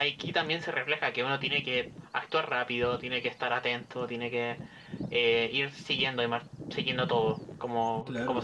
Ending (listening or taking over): taking over